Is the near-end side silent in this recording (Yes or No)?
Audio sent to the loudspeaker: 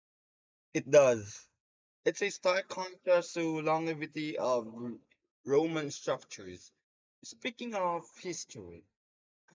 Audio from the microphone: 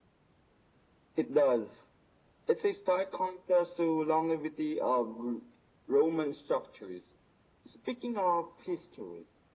Yes